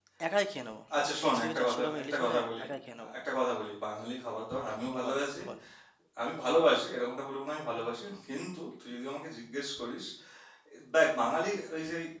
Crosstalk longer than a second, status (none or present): present